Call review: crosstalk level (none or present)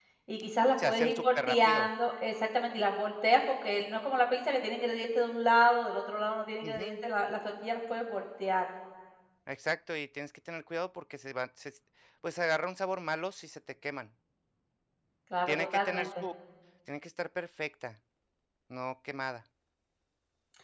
present